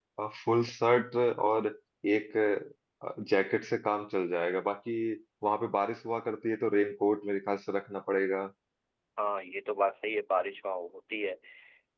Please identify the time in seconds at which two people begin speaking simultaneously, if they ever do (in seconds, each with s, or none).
none